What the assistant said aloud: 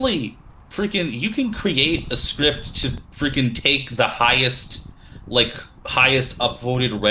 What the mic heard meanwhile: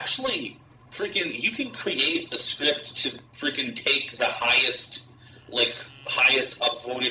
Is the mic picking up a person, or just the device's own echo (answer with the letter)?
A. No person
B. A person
A